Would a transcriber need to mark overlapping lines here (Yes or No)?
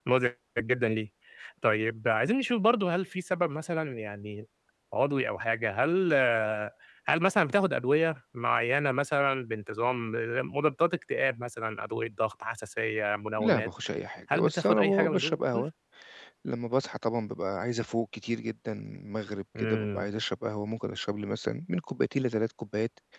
Yes